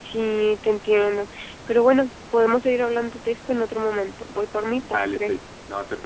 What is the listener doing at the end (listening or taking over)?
taking over